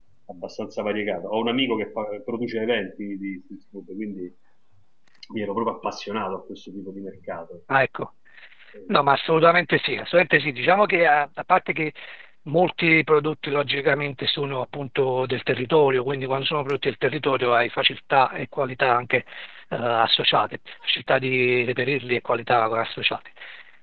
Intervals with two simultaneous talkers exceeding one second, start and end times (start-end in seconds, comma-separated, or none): none